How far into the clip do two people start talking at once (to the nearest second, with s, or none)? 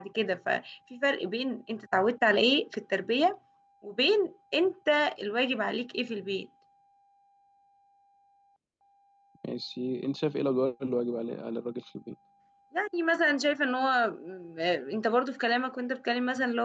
none